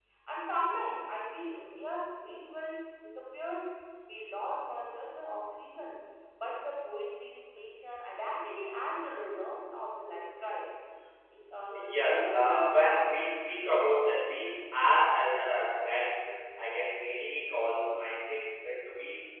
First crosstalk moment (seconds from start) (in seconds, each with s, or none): 11.7 s